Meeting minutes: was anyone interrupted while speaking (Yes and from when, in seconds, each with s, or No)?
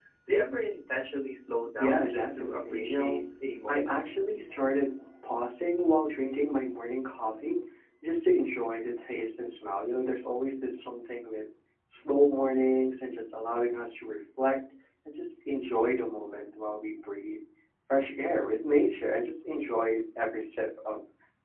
Yes, from 1.8 s